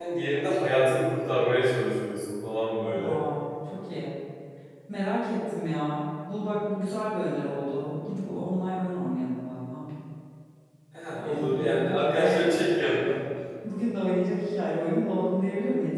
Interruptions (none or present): present